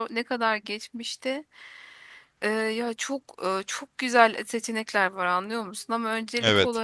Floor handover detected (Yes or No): No